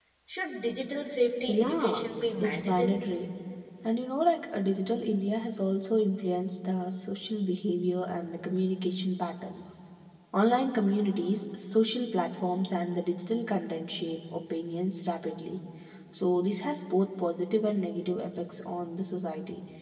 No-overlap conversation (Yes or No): No